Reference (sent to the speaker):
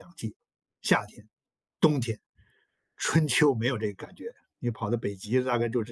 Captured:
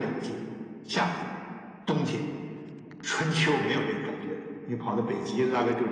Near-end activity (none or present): present